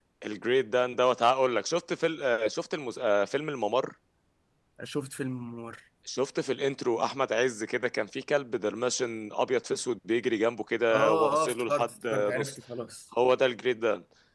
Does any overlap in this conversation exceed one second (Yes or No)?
Yes